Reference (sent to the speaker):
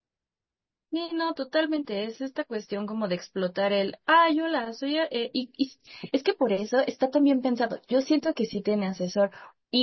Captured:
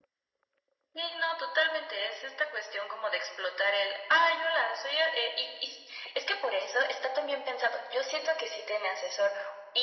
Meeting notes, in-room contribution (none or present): none